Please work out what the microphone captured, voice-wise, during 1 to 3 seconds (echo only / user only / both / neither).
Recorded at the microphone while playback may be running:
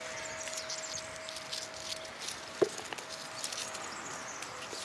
neither